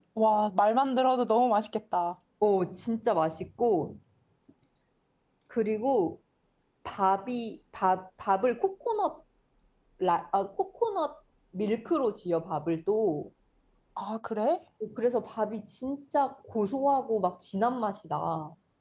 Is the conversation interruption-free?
Yes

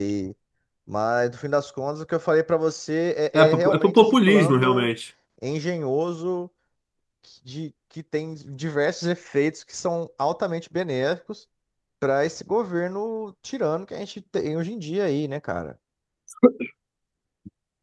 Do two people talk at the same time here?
Yes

